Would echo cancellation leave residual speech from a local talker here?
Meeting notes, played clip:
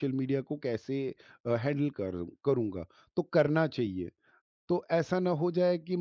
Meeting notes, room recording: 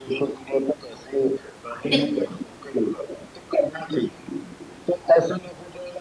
Yes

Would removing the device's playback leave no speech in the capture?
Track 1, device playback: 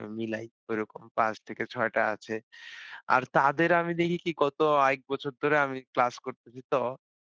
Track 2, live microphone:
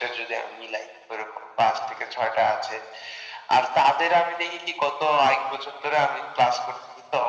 Yes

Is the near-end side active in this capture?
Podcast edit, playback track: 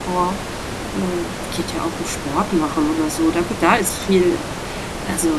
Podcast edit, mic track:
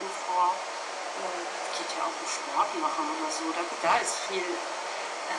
No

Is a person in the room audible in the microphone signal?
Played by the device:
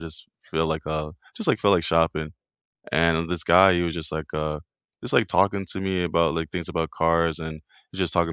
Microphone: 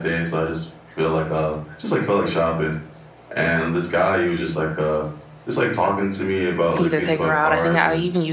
Yes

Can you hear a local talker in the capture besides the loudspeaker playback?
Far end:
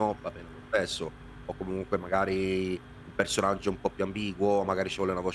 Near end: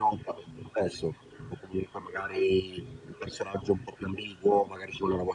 No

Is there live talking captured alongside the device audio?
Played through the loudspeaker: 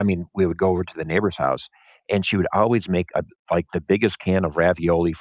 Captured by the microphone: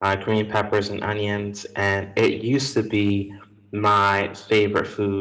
Yes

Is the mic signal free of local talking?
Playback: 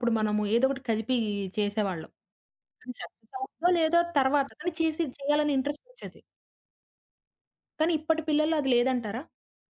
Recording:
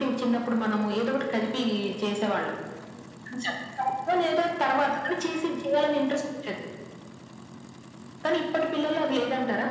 Yes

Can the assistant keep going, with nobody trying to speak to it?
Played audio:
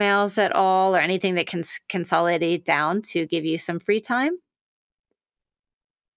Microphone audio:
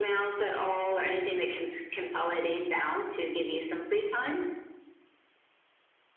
Yes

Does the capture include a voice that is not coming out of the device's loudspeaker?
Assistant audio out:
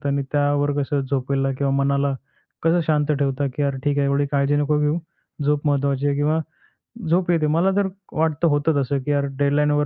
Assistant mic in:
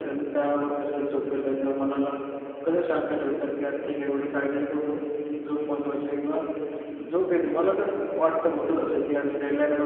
No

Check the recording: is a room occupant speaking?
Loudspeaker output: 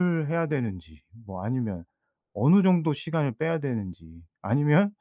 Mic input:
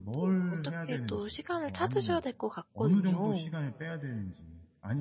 Yes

